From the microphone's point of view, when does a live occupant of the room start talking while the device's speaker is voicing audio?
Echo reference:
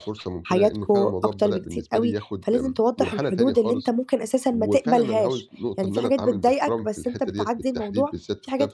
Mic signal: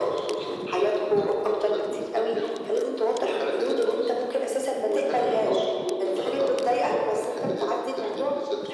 none

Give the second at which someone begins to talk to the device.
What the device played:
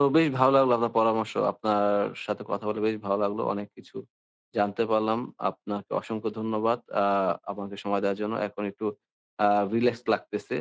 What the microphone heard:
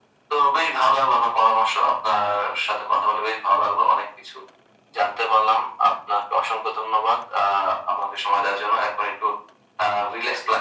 none

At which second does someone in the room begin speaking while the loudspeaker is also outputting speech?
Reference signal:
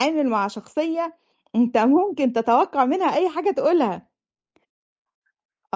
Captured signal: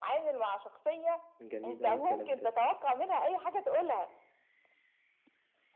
1.4 s

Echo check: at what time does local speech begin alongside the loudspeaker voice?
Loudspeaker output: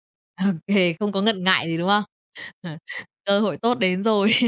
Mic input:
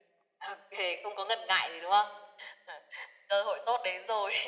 none

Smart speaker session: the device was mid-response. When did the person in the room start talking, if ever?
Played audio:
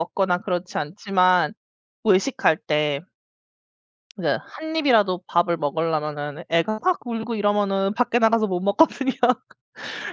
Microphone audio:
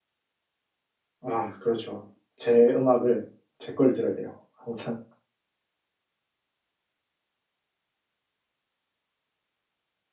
1.2 s

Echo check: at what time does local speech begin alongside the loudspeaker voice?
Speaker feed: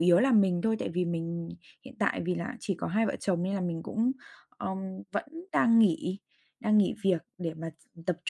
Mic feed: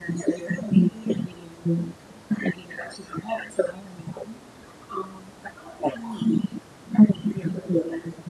none

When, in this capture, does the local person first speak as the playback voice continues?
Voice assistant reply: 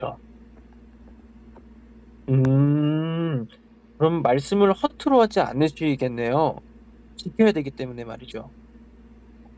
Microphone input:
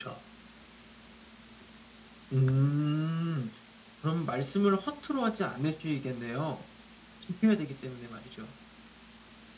none

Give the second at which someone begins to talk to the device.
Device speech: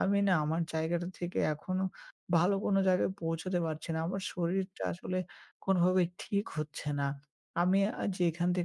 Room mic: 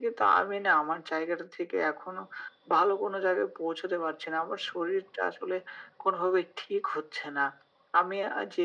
none

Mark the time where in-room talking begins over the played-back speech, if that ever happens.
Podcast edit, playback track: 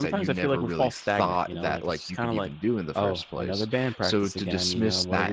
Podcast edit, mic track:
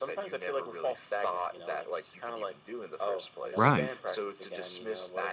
3.5 s

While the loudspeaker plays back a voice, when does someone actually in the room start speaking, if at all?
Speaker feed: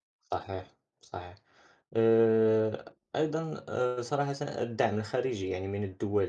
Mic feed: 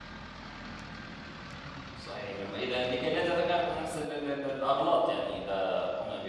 1.9 s

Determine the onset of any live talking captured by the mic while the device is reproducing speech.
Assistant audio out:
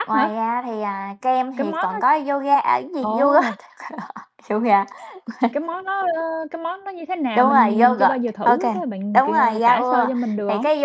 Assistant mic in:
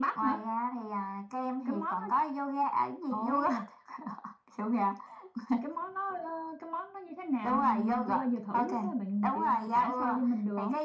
none

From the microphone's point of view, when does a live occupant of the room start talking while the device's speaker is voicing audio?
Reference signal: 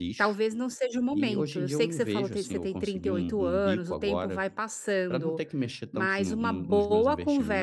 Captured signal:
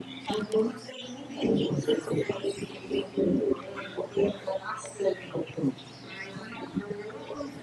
none

